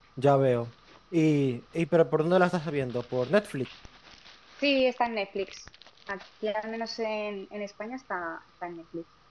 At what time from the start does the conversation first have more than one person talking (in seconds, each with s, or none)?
none